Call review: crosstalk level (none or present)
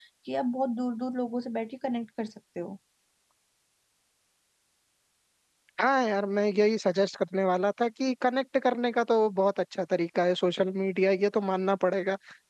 none